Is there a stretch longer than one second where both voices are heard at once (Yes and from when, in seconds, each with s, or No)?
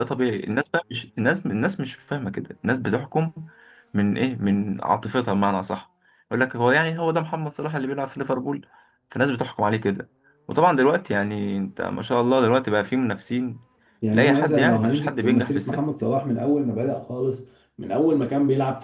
Yes, from 14.1 s